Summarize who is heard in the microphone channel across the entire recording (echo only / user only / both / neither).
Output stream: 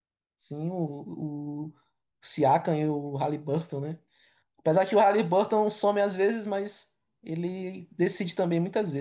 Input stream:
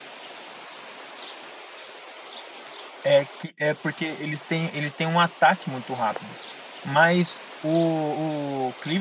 user only